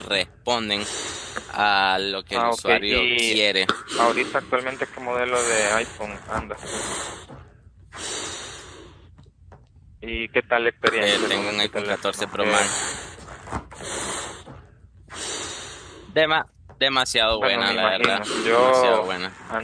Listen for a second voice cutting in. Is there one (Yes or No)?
Yes